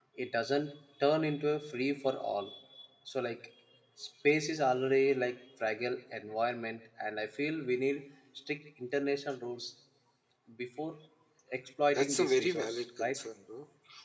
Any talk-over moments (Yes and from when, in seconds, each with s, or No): Yes, from 11.9 s